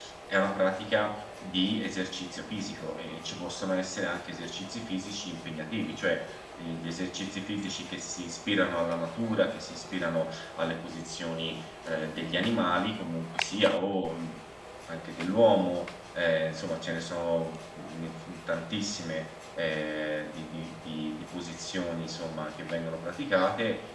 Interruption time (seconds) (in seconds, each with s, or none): none